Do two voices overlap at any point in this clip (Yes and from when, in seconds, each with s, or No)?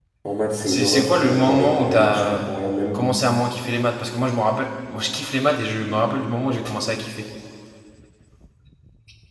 Yes, from 0.7 s